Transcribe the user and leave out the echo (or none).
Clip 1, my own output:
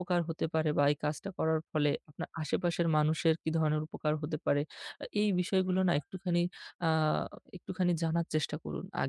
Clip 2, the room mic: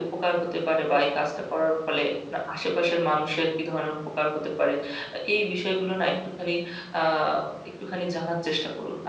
none